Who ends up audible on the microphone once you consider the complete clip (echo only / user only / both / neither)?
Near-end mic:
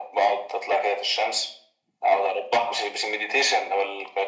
echo only